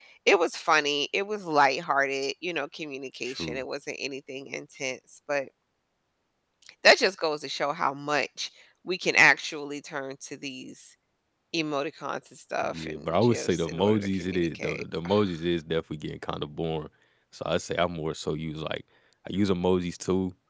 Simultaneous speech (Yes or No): Yes